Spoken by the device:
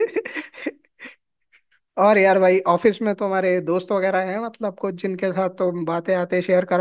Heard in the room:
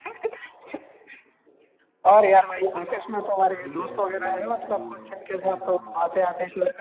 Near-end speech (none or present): present